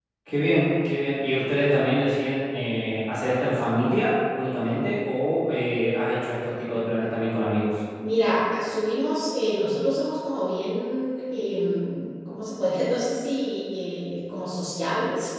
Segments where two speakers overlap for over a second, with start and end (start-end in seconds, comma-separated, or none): none